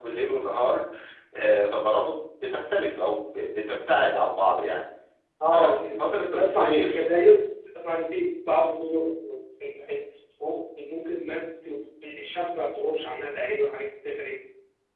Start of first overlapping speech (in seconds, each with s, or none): 5.5 s